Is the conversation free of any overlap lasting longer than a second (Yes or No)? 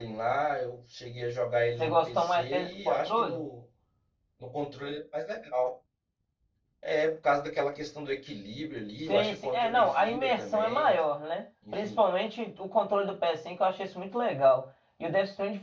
No